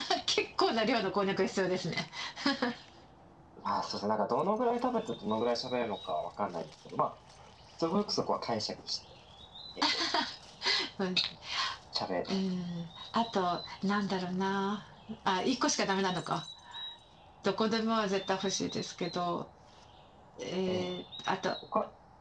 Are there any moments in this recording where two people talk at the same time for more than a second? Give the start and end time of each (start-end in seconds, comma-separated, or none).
none